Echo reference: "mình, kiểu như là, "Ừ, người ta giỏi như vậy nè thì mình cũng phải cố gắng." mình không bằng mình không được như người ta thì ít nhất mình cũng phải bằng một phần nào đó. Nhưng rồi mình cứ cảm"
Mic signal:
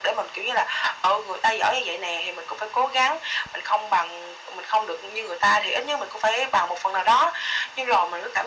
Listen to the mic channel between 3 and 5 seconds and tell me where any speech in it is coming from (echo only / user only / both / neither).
echo only